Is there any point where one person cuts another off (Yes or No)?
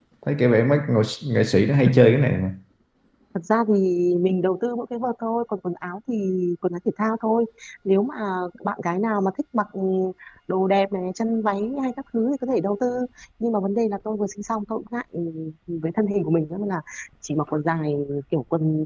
No